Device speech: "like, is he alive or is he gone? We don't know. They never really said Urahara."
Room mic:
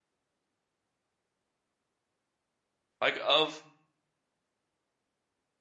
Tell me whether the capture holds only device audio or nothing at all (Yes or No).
No